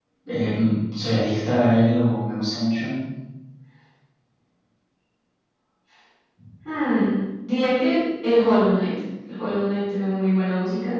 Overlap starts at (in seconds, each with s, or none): none